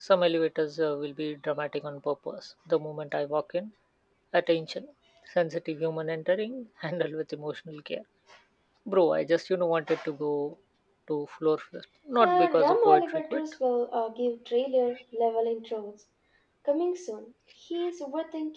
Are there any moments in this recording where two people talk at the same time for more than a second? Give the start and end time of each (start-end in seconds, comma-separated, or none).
12.2-13.4